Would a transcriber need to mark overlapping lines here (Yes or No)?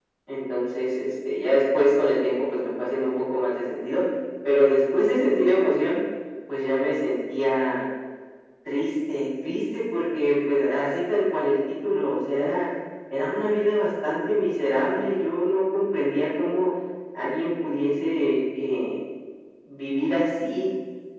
No